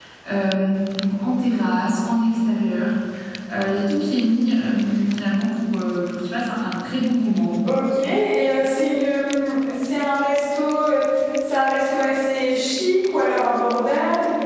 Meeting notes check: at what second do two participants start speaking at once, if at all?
none

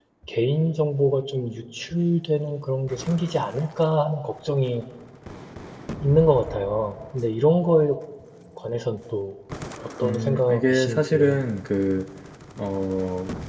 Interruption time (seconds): 10.0 s

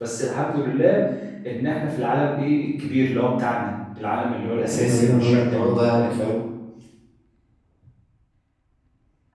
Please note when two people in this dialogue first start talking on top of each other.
4.7 s

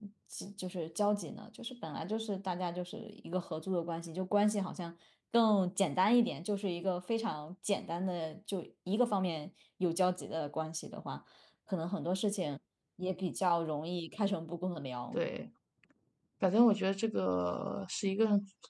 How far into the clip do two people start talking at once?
none

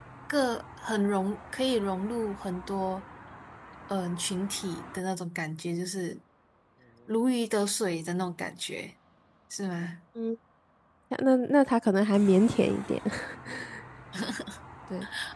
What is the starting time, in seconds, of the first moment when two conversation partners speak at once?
none

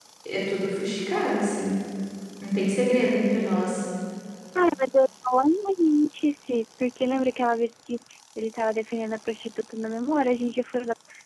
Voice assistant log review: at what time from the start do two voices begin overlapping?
none

